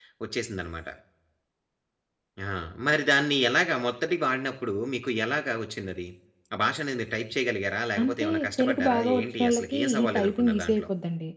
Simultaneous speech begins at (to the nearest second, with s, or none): 8 s